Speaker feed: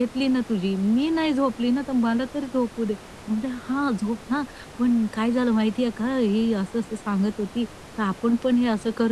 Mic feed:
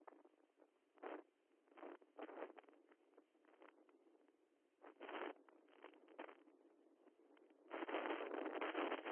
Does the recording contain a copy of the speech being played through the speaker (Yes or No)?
No